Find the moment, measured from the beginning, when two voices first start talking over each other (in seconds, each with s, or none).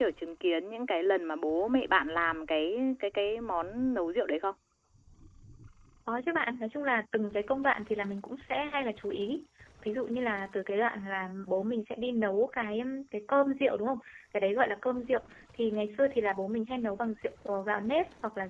none